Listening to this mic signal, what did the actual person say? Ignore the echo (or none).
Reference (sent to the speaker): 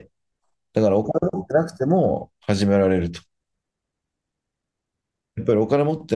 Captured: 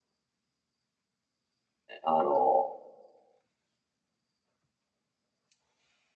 あの、